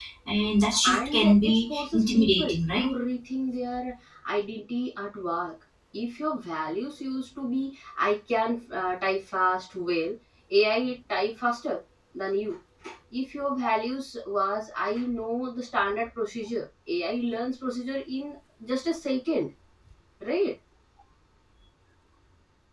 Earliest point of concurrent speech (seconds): 0.8 s

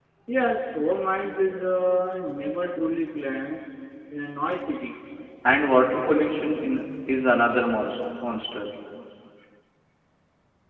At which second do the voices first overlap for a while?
none

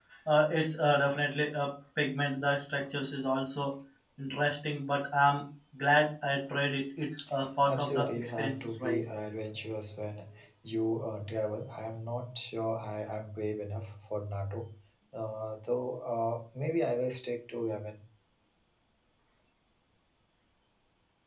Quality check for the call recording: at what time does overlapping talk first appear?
7.7 s

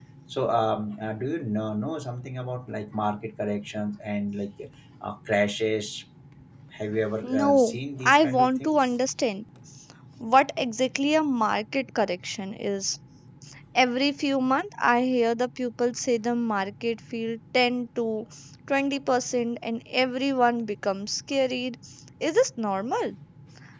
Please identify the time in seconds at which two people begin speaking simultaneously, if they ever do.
7.3 s

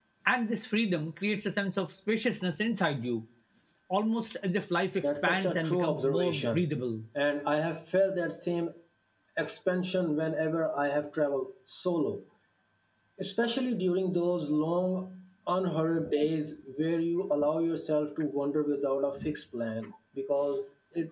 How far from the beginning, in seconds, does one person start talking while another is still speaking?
5.0 s

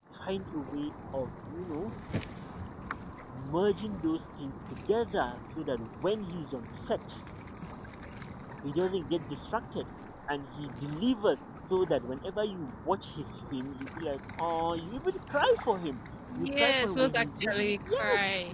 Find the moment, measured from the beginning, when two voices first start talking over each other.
16.3 s

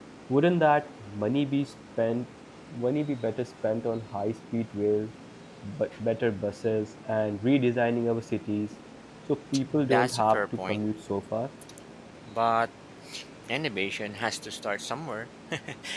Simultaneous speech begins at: 9.6 s

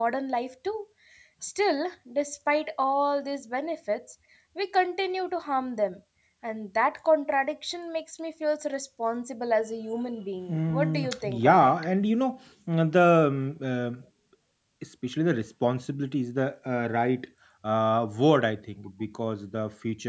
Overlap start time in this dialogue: 10.5 s

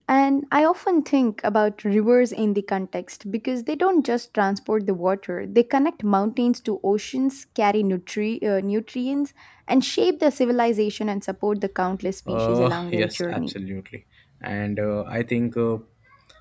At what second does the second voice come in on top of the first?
12.3 s

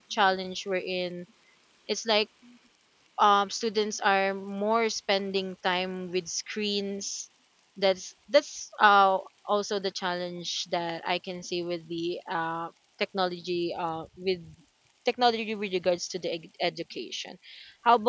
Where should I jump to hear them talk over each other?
none

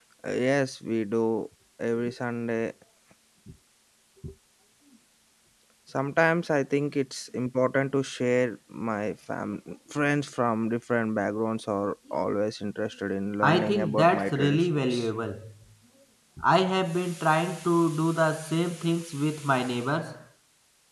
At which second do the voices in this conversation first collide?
13.4 s

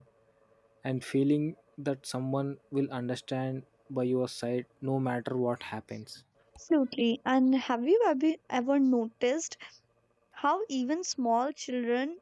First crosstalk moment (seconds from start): none

